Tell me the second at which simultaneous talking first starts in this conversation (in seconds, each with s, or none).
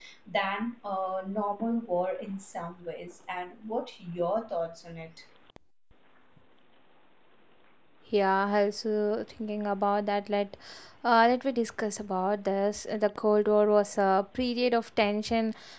none